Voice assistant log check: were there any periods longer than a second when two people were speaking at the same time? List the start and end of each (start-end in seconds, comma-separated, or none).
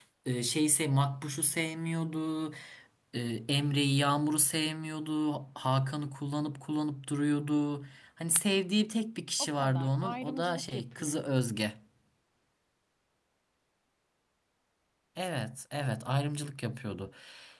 9.4-11.2